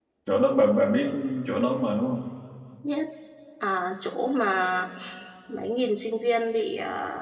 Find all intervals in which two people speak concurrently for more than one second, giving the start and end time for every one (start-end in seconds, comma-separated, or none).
none